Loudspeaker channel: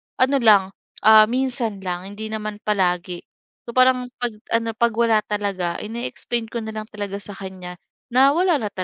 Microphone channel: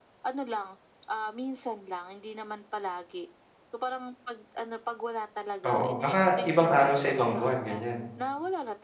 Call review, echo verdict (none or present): present